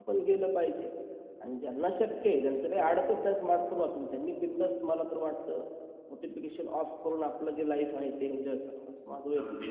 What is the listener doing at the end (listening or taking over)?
taking over